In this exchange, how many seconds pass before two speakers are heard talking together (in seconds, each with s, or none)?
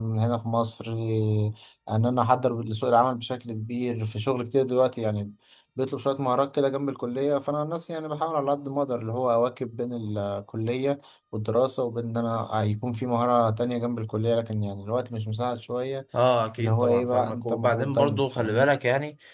16.6 s